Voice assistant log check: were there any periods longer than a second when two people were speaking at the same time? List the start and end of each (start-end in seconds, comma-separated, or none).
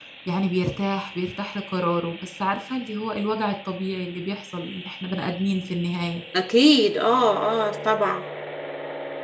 none